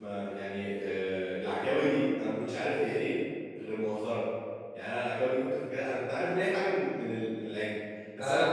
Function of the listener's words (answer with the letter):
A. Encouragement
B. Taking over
A